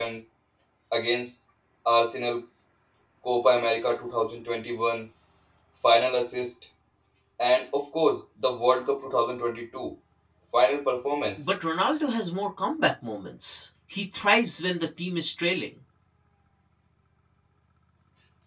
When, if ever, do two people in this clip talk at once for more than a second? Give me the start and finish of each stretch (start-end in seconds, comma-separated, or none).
none